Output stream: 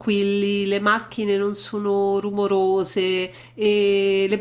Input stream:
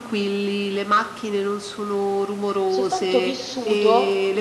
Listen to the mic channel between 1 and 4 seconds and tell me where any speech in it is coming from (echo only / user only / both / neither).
both